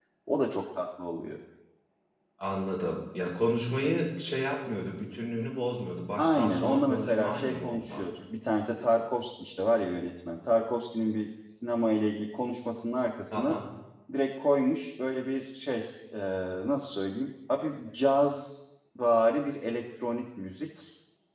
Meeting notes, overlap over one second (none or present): present